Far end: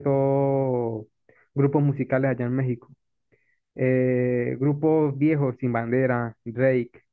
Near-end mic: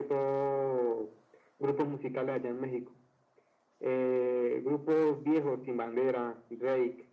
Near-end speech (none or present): none